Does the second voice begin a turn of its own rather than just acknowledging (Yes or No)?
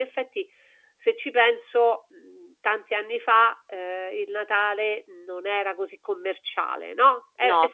No